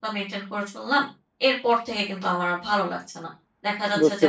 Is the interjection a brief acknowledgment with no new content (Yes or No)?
Yes